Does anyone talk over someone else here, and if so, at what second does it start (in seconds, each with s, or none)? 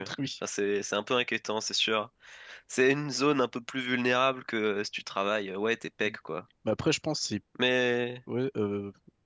none